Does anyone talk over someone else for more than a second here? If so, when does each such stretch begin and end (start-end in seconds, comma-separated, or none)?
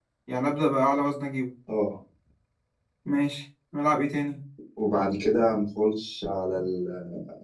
none